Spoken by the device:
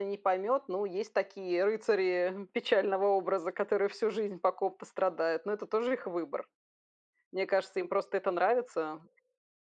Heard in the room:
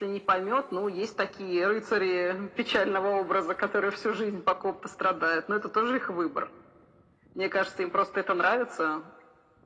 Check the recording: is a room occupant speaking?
No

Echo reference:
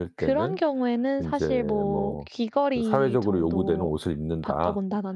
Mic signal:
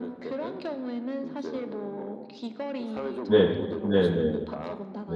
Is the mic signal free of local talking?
No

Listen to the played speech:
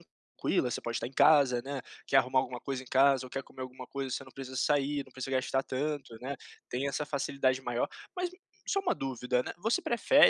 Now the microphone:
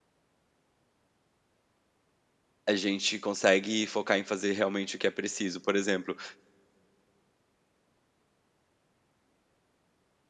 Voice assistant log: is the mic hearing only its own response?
No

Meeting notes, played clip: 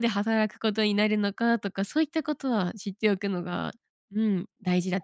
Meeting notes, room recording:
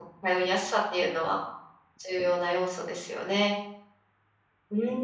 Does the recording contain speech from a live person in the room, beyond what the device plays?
Yes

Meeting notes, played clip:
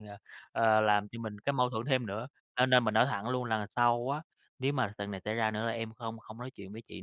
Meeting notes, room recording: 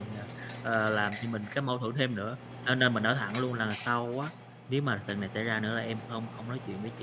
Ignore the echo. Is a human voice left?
No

